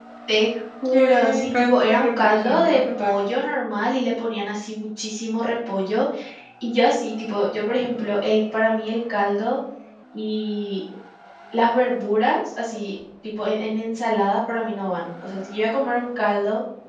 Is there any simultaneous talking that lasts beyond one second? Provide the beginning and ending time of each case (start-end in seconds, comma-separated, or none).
0.9-3.1